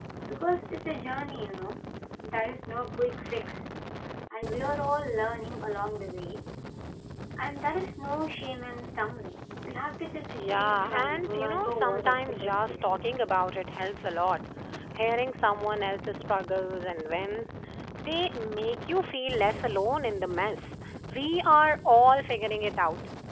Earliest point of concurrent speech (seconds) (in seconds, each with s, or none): 10.3 s